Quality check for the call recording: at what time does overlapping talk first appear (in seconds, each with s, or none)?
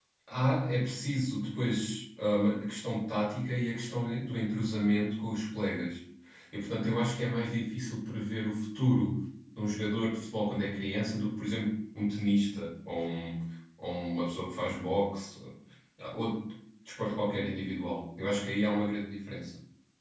none